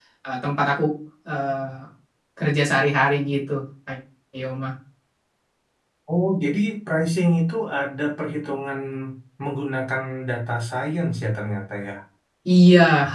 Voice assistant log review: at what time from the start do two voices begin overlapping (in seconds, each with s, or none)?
none